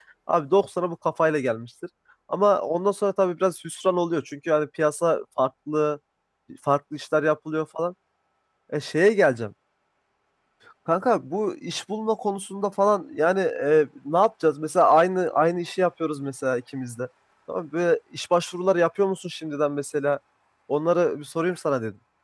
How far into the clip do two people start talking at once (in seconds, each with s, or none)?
none